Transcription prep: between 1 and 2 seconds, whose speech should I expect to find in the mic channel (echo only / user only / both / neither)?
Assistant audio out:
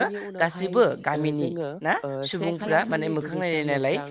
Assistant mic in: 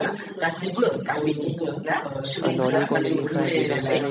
echo only